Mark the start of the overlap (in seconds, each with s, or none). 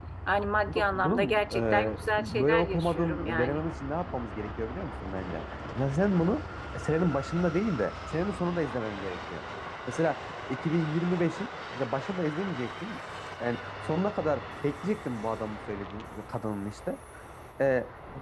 0.6 s